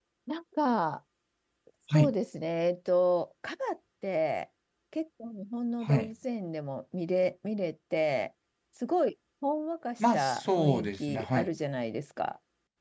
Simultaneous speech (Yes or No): Yes